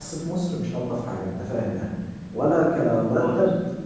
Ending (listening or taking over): listening